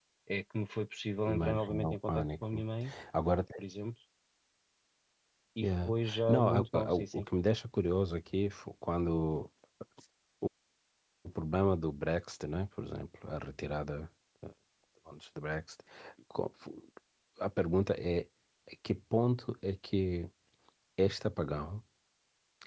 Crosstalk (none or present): present